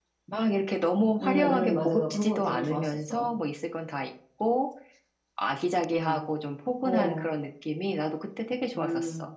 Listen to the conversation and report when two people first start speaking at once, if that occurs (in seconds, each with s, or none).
1.2 s